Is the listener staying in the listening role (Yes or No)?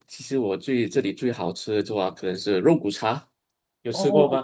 No